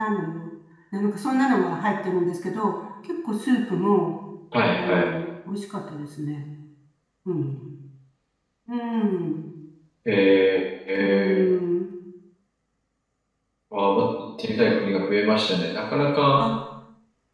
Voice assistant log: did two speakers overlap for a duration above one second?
No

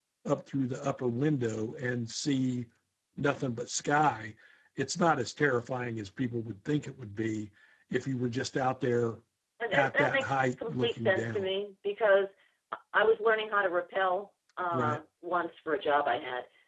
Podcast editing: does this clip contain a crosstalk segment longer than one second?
Yes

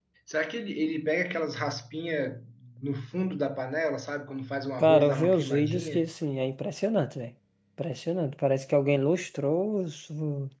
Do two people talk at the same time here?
Yes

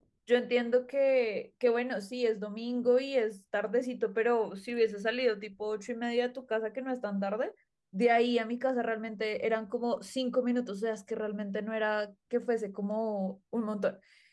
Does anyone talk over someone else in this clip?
No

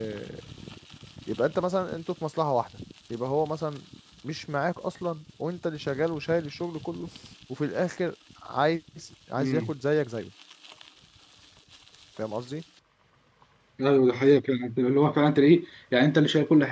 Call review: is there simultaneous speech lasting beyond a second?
No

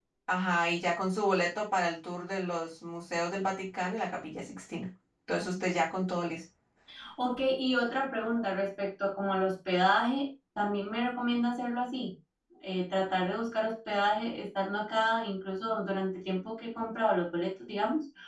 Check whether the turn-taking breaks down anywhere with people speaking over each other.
No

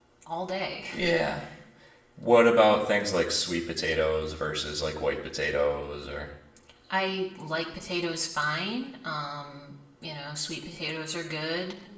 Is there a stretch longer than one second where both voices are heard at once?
No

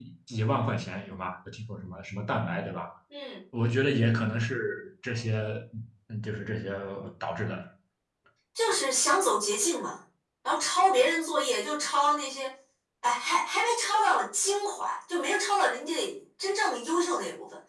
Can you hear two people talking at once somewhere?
No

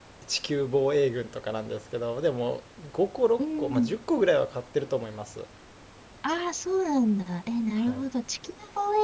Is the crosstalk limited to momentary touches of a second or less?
Yes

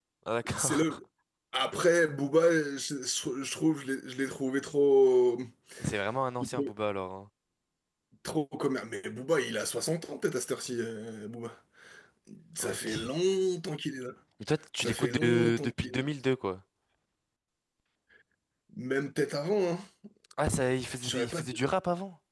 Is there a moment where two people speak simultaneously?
Yes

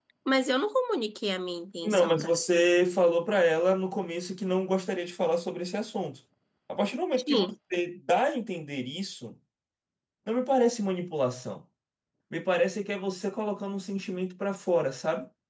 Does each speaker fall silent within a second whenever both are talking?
Yes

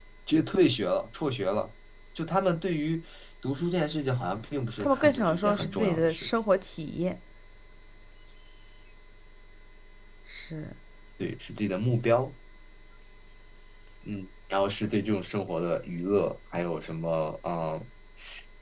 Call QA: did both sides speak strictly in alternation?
No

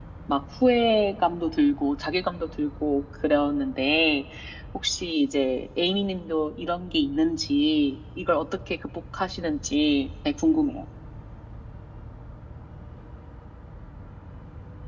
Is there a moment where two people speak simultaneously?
No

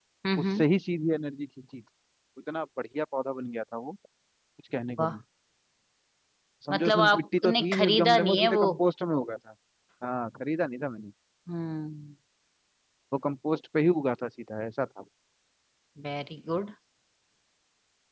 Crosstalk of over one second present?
Yes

